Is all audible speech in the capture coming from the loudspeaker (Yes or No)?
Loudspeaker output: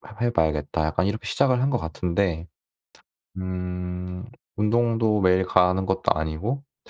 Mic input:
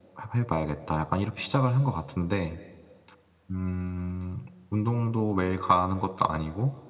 Yes